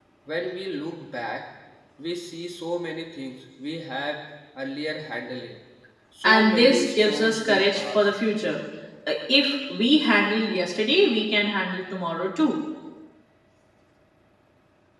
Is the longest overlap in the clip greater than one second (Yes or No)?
Yes